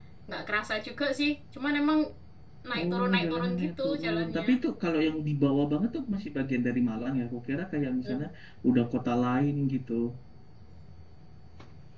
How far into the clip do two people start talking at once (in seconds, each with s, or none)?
2.8 s